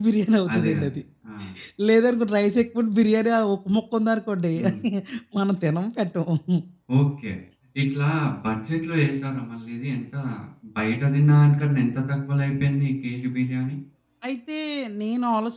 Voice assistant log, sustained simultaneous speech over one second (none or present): none